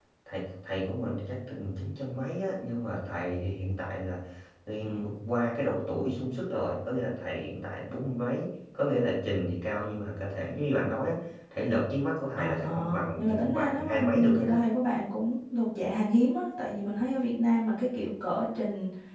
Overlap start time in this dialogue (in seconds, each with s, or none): 12.3 s